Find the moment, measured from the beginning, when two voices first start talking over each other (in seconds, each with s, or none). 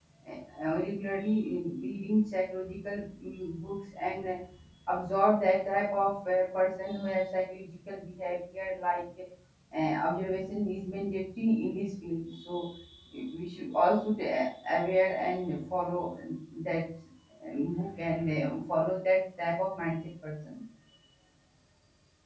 none